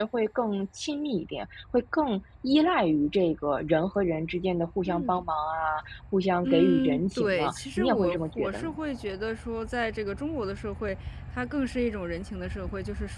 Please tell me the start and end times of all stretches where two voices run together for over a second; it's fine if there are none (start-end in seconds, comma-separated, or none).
6.4-8.7